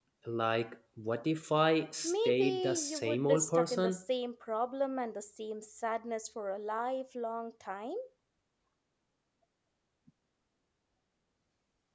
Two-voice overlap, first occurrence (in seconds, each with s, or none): 2.0 s